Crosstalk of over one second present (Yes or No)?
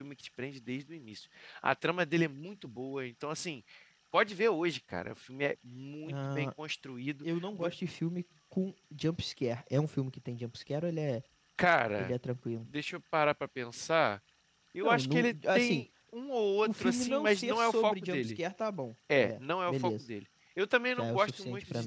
Yes